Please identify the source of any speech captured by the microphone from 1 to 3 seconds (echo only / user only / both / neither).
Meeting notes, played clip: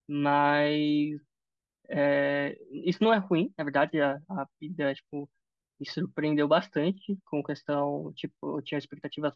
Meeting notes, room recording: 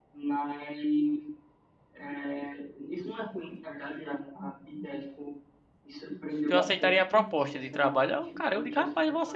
echo only